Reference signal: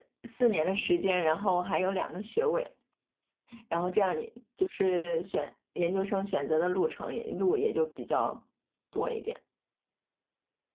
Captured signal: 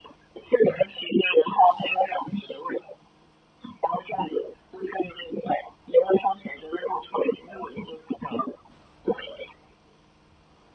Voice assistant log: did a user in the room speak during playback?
No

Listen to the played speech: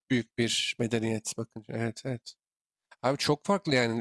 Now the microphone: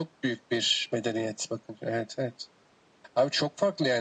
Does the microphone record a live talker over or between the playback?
No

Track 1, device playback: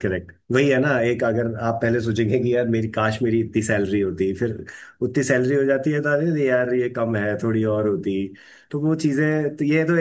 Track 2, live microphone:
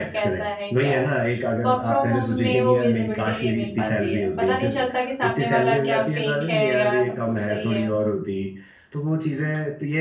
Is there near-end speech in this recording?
Yes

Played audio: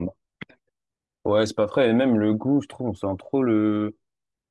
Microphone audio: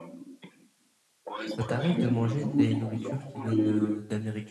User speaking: Yes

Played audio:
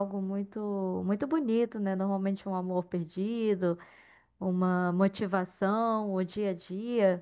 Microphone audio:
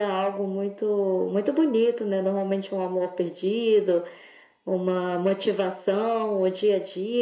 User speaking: No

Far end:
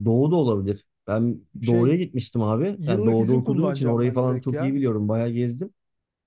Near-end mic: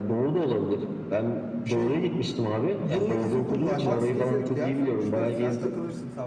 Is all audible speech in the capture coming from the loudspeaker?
No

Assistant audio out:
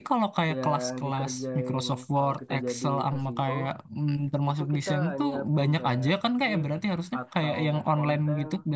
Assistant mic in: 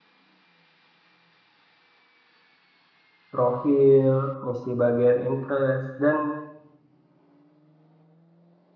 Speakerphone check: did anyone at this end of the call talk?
Yes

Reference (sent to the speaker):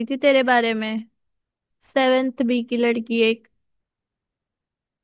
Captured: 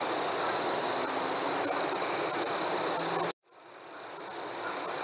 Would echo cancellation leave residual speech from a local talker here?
No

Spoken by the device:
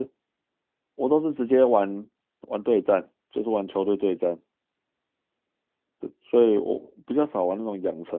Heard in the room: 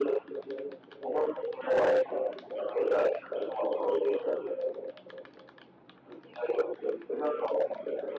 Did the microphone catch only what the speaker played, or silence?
Yes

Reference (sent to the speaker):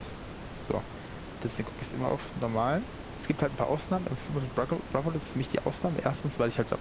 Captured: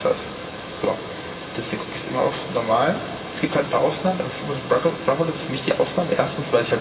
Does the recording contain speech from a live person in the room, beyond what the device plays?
No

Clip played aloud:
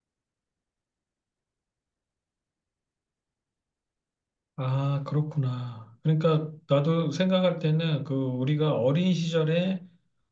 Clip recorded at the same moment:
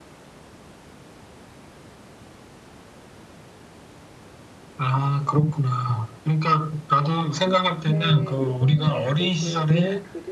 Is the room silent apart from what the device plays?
No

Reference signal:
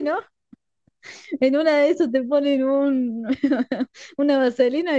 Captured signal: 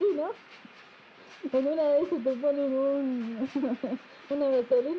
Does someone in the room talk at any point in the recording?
No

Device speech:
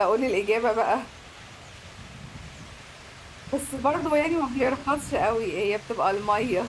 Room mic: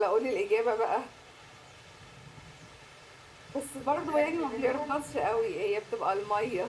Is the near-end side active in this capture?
Yes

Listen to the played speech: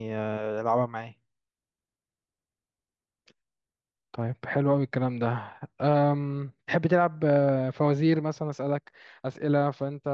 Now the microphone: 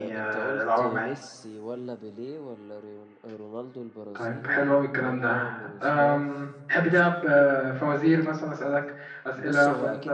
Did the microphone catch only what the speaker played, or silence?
No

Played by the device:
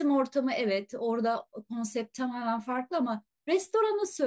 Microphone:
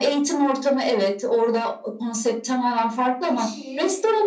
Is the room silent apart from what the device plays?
No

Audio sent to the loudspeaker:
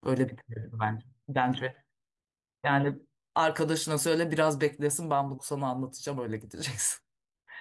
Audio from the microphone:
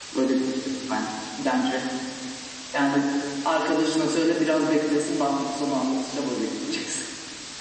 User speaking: No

